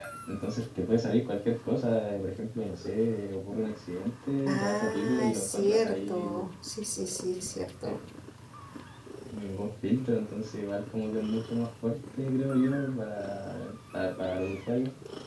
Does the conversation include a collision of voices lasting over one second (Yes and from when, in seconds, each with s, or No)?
Yes, from 4.5 s